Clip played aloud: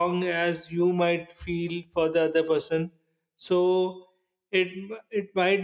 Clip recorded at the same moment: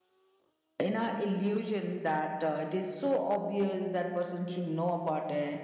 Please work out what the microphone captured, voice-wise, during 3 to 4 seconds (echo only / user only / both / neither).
user only